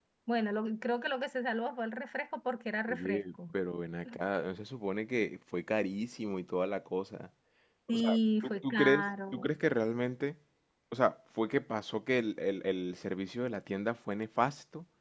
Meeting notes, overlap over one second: present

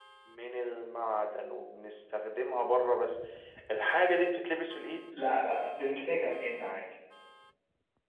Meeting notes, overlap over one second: none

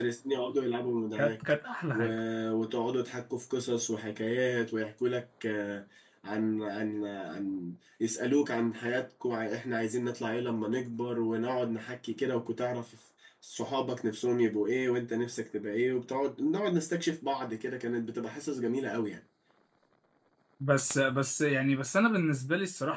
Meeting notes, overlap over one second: none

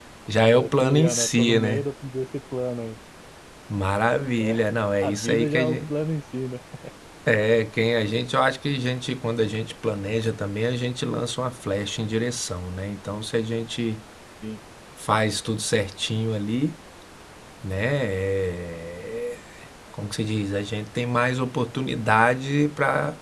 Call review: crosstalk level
present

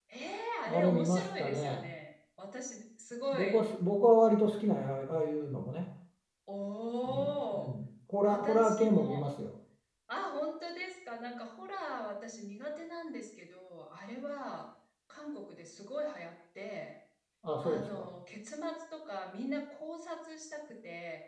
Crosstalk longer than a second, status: present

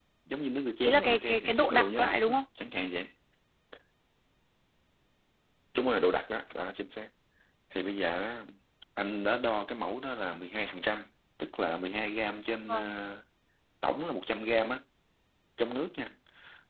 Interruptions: present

